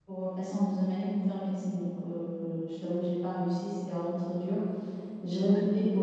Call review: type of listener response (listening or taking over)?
listening